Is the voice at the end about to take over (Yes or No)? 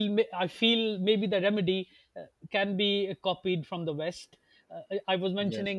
No